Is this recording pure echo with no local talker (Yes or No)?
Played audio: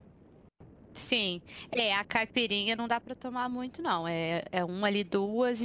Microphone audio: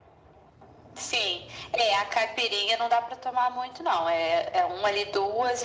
Yes